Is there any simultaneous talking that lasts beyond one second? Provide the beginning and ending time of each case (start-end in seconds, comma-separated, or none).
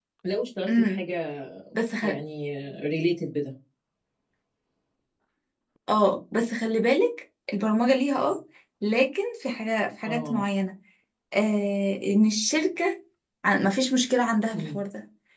none